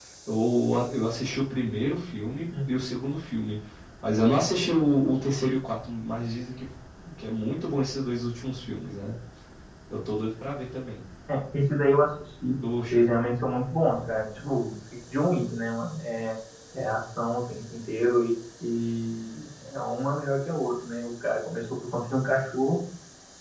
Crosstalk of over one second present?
No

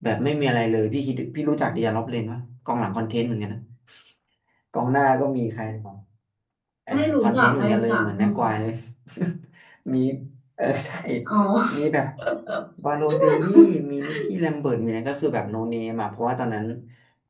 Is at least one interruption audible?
Yes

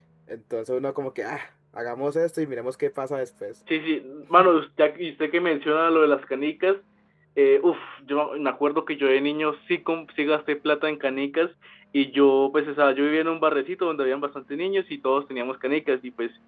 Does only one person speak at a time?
Yes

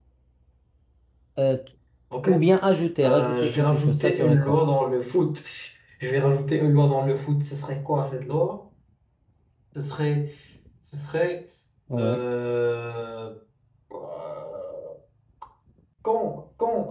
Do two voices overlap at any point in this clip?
Yes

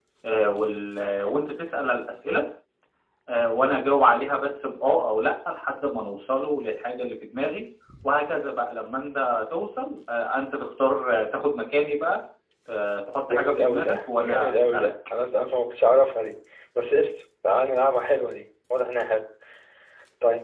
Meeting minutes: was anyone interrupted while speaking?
Yes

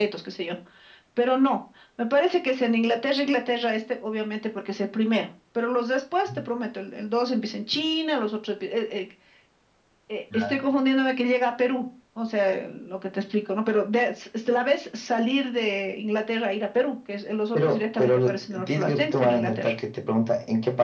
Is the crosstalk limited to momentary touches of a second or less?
No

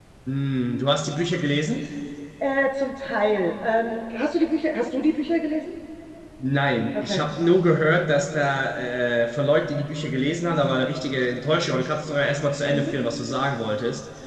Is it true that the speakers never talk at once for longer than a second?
Yes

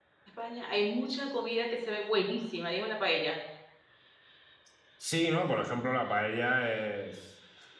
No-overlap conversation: Yes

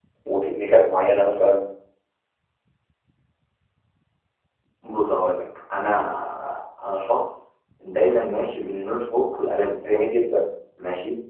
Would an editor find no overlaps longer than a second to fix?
Yes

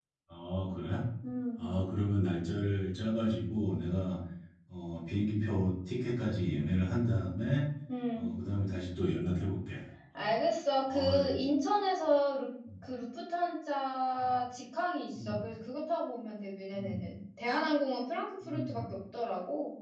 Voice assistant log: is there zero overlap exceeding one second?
Yes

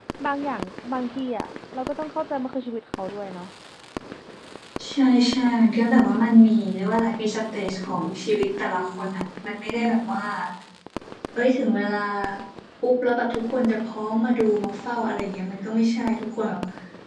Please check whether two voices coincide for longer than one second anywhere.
No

